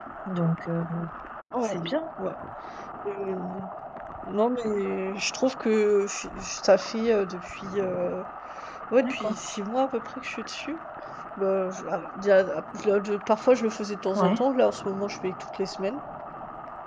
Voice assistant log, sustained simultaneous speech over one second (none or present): none